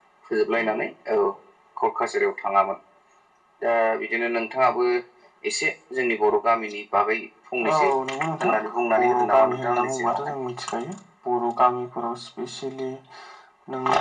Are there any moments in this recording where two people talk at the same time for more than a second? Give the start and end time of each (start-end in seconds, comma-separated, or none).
9.0-10.3